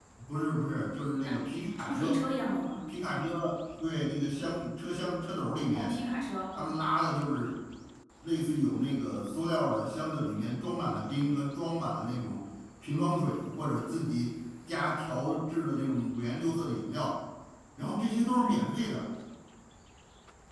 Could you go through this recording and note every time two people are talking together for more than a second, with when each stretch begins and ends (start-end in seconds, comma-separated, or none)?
none